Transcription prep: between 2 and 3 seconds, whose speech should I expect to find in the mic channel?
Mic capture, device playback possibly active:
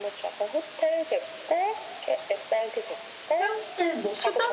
echo only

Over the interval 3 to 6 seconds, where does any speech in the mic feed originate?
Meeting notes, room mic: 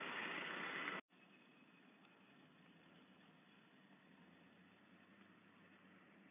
neither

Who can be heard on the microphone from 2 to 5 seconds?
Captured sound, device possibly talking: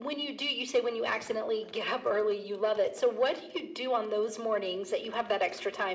echo only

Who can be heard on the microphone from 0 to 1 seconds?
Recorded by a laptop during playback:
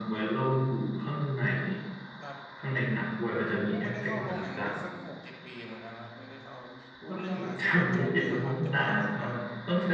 echo only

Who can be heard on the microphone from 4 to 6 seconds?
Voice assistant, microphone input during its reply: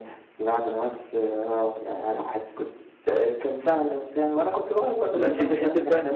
both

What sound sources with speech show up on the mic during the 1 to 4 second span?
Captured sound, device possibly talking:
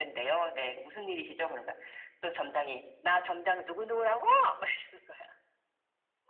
echo only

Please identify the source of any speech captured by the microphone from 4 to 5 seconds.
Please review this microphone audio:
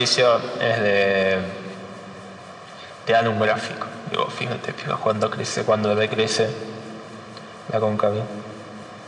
echo only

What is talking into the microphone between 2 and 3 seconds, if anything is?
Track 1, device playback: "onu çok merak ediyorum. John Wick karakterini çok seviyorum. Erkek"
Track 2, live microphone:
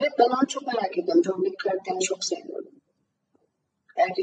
echo only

